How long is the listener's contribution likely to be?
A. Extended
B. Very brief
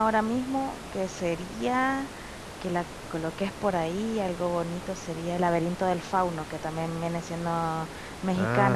B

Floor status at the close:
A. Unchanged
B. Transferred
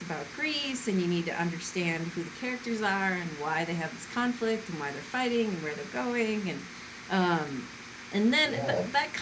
A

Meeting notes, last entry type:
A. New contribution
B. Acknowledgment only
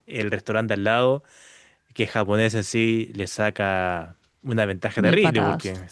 B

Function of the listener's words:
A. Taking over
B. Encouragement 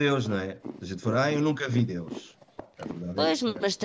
A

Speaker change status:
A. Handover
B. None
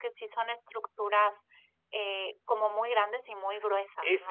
A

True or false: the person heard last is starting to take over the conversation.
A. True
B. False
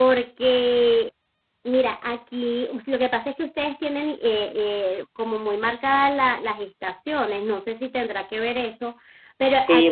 A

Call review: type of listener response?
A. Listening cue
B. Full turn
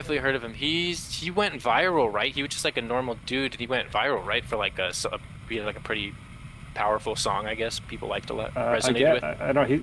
B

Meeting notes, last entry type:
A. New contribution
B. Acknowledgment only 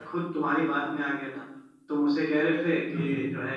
B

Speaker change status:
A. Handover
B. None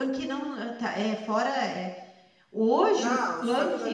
A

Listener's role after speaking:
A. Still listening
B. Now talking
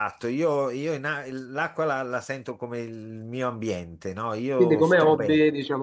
B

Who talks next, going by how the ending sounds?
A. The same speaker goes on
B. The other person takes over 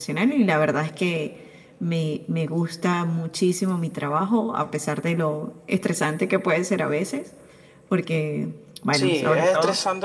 B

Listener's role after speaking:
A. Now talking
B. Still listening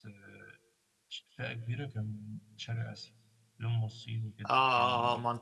A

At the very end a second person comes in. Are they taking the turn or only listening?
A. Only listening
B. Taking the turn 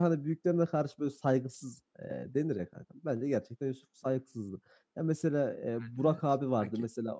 A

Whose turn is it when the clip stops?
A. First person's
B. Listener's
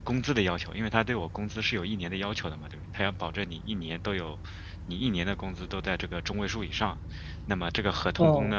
A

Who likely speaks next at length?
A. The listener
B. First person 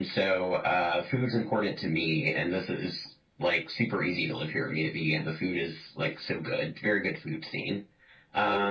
A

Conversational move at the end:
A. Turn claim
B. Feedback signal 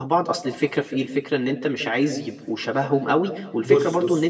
B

